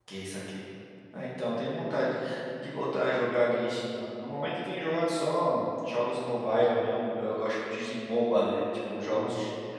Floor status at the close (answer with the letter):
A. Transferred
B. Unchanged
B